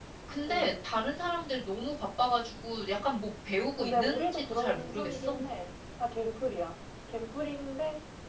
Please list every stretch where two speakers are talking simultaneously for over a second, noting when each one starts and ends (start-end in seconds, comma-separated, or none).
3.8-5.3